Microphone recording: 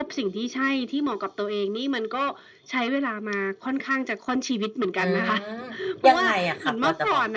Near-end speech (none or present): present